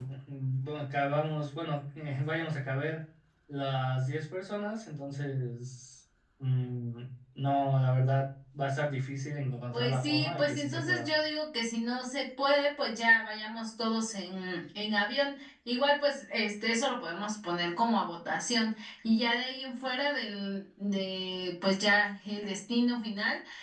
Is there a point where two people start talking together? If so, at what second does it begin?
10 s

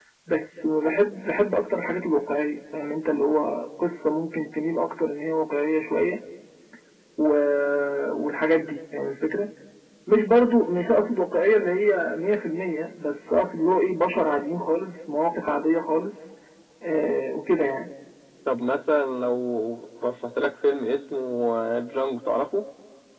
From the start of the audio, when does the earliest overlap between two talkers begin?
none

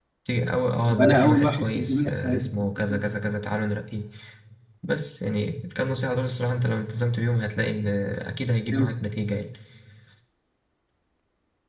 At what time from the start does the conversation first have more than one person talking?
1 s

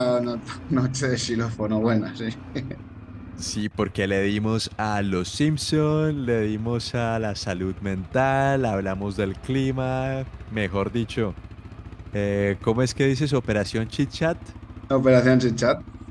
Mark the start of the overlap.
none

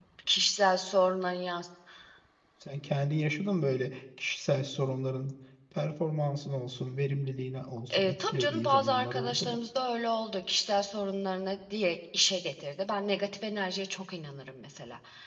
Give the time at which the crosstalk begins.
8 s

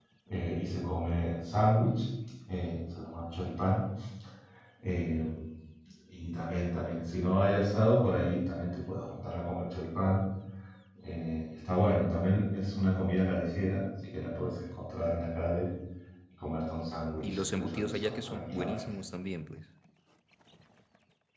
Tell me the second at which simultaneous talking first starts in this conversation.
17 s

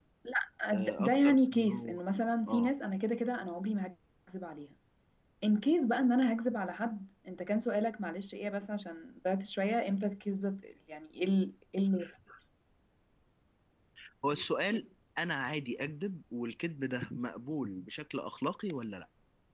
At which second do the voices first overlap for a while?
1 s

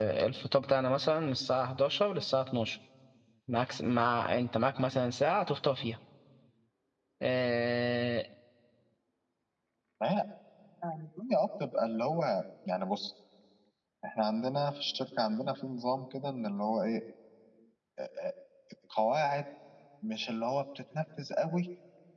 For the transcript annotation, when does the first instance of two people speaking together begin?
none

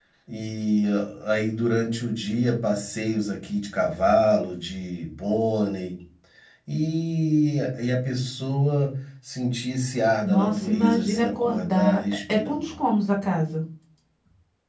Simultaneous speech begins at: 10 s

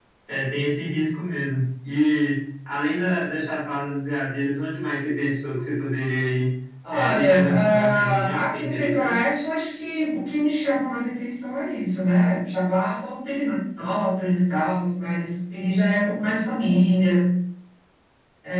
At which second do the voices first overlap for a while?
7 s

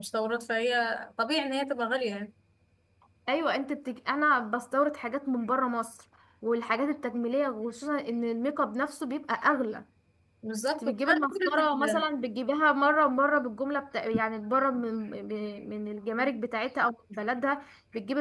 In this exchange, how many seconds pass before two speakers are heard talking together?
11 s

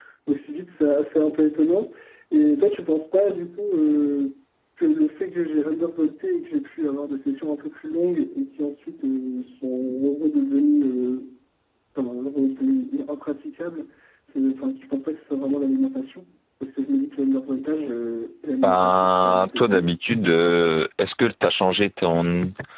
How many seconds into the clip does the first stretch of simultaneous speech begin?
19 s

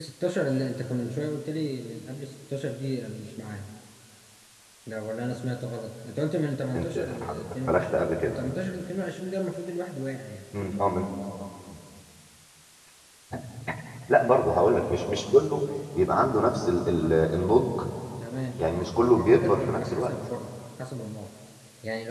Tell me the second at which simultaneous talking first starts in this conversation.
7 s

